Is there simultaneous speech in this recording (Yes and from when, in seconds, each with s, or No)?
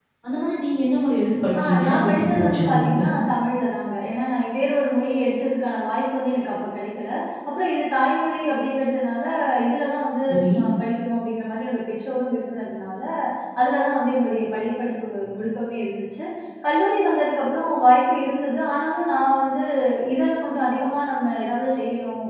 Yes, from 1.6 s